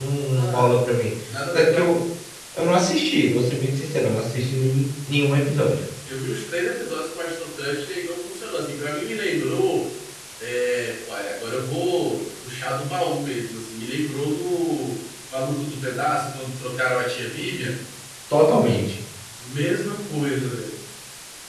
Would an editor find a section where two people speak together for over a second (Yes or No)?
No